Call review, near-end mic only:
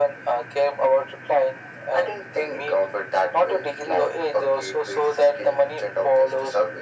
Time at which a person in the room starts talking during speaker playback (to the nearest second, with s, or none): none